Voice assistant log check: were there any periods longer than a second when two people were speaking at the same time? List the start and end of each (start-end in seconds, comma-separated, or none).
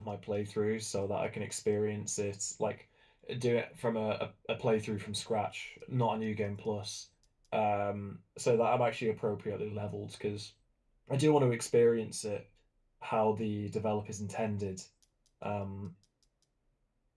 none